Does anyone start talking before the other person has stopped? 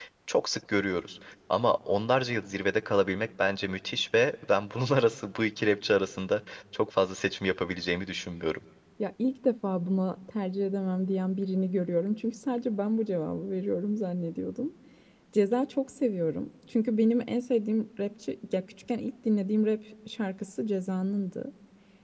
No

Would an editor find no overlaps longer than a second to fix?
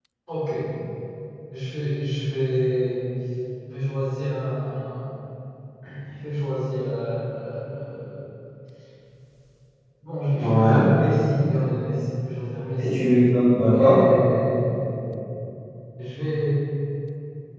Yes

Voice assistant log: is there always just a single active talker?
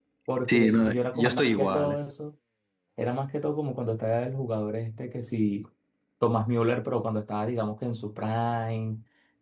No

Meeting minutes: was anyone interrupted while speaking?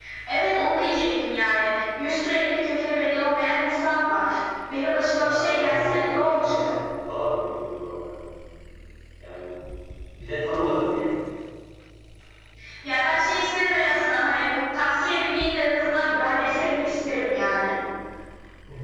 Yes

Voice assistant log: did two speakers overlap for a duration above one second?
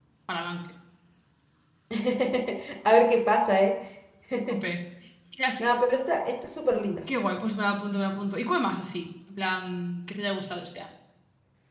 No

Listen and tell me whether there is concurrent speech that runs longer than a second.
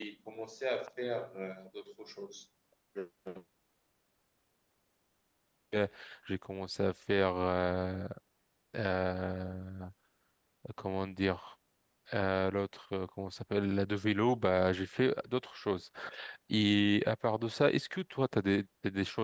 No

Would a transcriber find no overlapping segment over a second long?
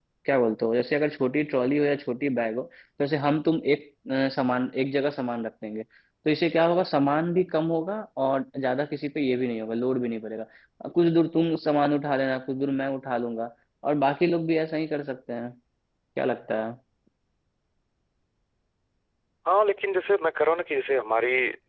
Yes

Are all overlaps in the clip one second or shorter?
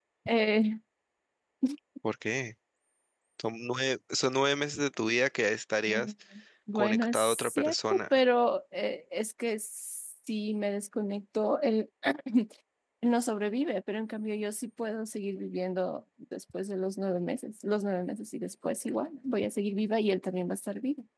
No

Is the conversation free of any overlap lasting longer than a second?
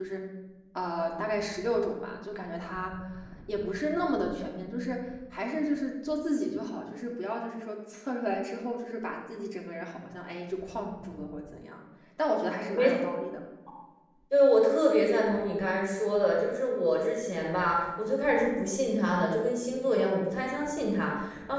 Yes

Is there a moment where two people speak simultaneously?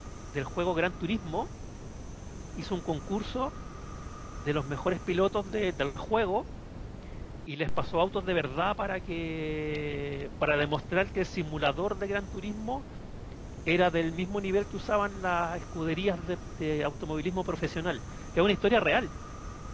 No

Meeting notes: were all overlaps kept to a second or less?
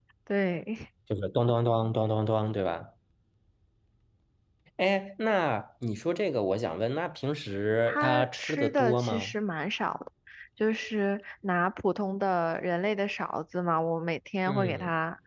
No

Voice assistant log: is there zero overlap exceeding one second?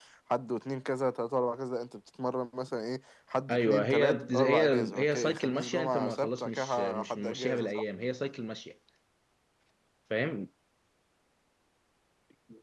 No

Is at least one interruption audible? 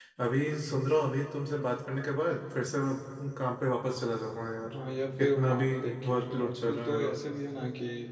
Yes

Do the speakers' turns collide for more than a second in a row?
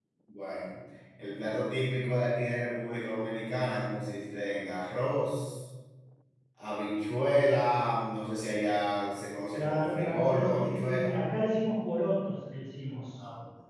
Yes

